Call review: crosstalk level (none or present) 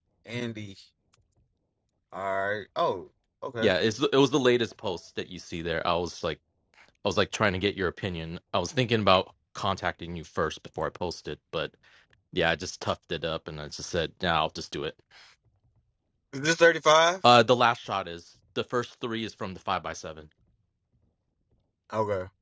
none